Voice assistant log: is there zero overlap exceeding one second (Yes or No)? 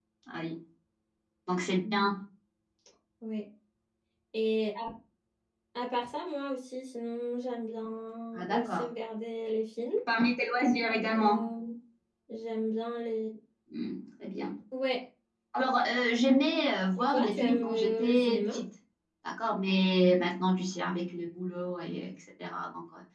No